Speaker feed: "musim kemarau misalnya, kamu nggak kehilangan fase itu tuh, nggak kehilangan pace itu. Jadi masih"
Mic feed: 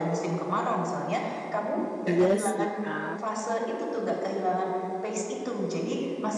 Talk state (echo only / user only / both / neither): both